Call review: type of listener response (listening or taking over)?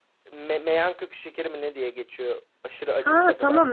taking over